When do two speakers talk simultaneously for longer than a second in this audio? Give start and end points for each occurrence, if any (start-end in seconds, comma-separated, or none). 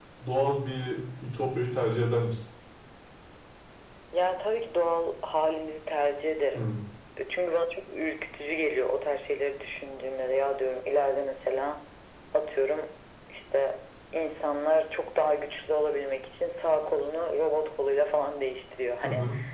none